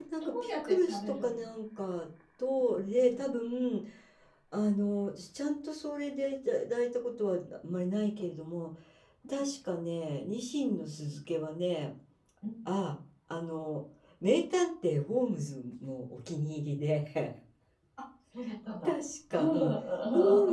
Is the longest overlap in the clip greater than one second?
Yes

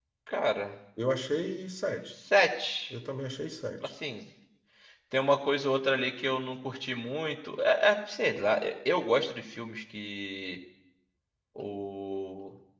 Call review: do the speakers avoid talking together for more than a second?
Yes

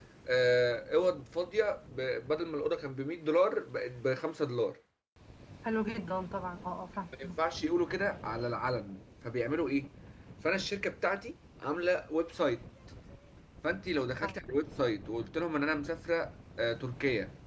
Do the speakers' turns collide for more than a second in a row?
No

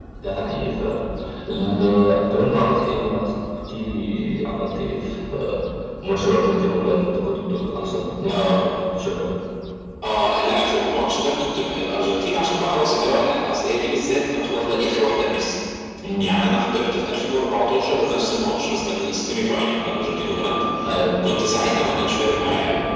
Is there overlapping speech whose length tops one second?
No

